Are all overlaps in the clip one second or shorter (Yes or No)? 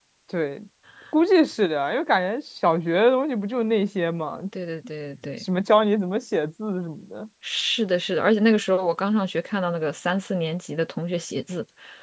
Yes